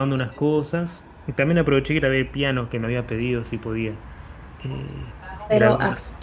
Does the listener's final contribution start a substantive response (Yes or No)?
Yes